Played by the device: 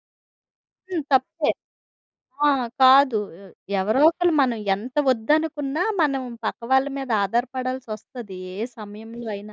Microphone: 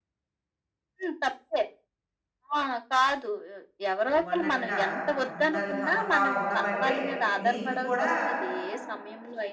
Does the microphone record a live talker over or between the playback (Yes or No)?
Yes